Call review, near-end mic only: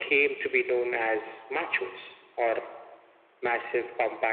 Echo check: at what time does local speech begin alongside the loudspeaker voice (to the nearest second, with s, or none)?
none